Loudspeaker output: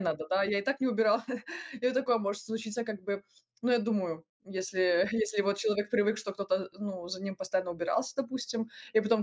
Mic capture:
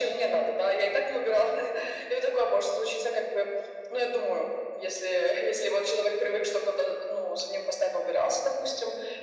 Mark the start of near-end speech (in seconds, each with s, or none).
none